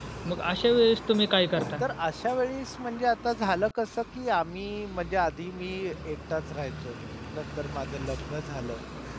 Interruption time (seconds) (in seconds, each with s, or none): none